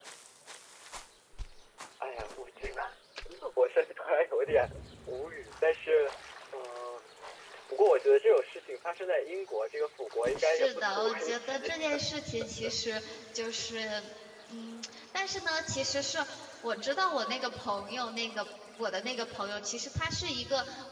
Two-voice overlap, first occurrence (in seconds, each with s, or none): 10.4 s